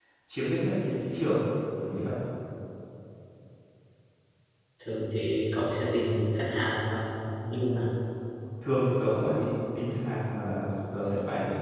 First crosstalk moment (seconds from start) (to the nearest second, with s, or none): none